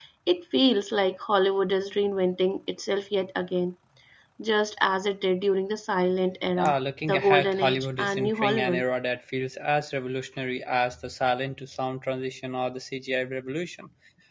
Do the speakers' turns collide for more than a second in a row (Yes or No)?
Yes